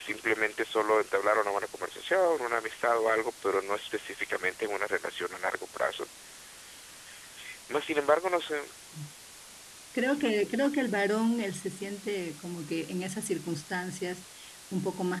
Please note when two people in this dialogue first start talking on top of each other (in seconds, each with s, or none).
none